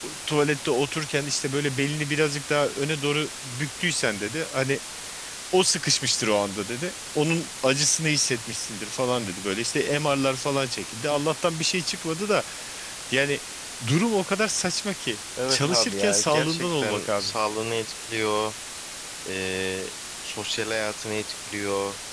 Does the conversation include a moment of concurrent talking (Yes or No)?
Yes